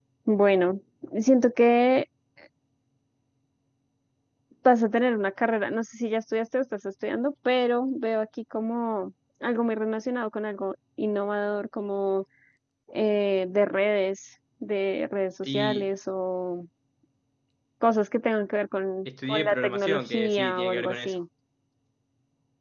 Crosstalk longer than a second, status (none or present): present